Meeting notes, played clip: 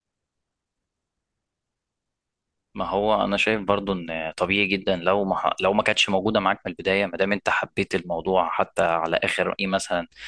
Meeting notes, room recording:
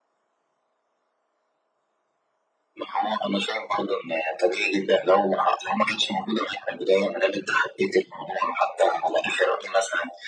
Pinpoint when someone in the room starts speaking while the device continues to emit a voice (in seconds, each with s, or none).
none